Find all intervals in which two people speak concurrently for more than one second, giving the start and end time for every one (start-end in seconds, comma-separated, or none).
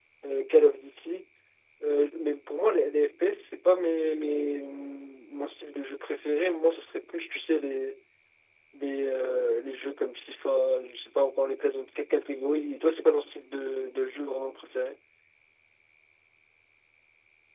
none